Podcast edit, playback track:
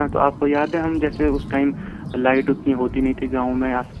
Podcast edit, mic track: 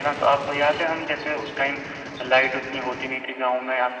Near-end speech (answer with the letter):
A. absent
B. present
A